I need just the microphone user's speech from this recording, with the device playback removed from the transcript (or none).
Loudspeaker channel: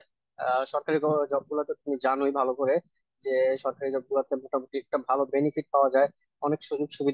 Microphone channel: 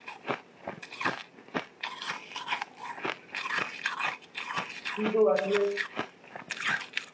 কিন্তু আসলে